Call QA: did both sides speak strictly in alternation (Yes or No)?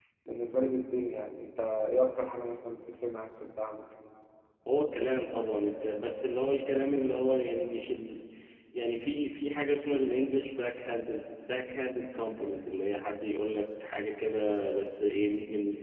Yes